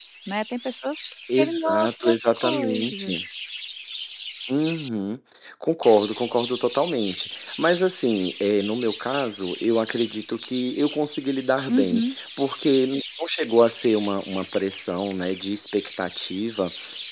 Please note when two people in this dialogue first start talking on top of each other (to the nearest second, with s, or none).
1 s